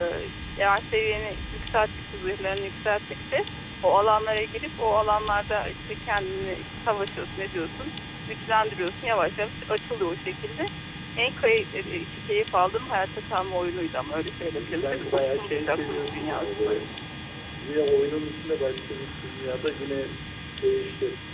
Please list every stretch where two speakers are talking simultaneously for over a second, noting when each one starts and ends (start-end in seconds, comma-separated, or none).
14.5-16.8